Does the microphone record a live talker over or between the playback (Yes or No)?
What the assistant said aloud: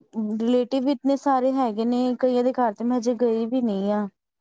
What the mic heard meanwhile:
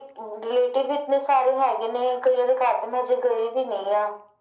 No